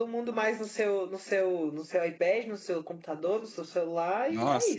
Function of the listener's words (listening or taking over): taking over